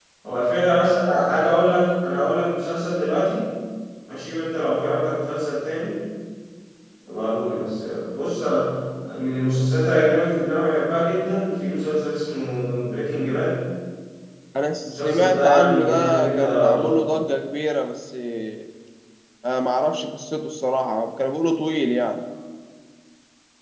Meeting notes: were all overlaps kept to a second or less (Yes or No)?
No